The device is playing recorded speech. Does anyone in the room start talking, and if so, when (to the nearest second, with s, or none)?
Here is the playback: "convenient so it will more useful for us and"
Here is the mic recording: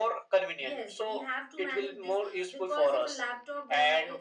1 s